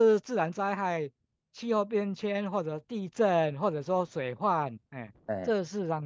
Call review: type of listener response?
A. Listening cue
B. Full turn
A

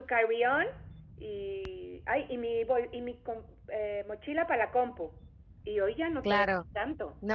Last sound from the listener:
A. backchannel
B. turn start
B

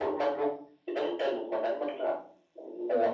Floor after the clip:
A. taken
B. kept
B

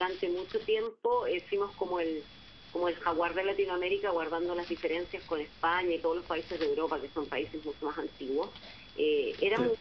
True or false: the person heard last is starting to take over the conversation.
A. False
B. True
A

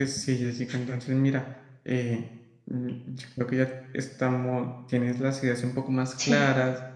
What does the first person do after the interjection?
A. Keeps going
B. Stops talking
A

